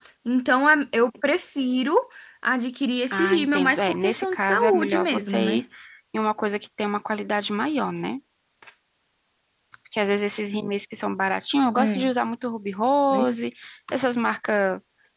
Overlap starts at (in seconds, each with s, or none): 3.1 s